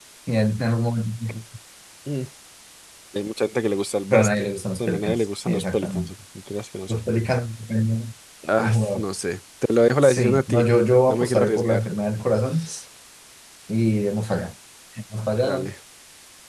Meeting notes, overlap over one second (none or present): present